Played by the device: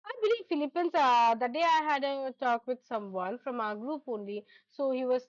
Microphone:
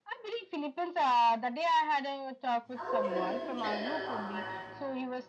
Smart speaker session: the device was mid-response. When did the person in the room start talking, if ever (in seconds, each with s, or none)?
2.8 s